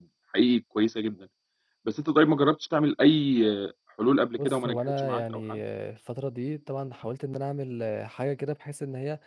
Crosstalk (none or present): present